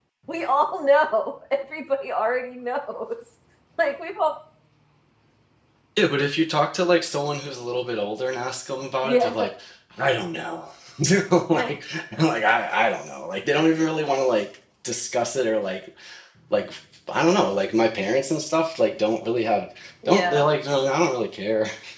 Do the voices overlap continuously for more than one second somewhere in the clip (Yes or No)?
No